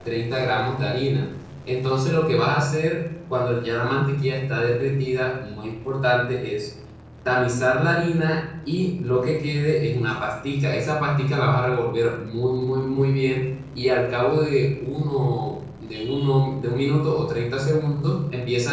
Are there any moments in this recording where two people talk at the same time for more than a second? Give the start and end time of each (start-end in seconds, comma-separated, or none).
none